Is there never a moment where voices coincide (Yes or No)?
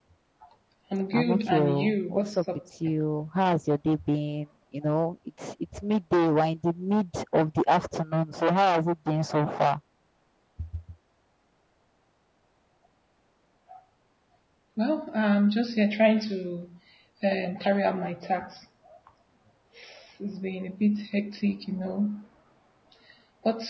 No